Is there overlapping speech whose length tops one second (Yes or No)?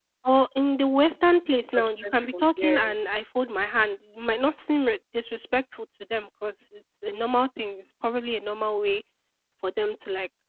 Yes